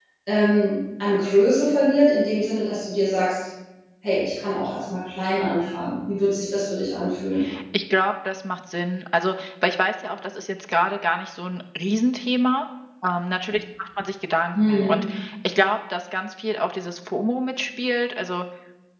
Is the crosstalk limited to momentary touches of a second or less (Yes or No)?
Yes